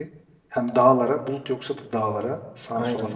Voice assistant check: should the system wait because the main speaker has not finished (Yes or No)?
No